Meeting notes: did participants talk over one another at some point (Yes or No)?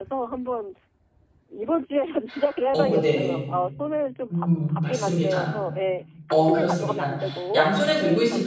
Yes